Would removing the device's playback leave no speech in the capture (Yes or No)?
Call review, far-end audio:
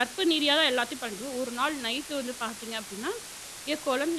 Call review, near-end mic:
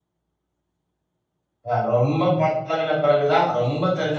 No